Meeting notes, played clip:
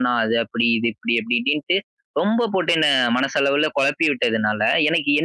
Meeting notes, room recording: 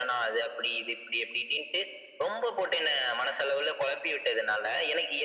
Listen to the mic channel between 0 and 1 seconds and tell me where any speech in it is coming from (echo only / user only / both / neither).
echo only